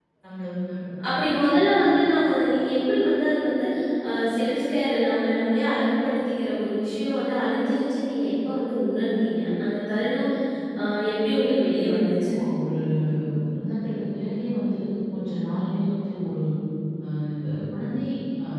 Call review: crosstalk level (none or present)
none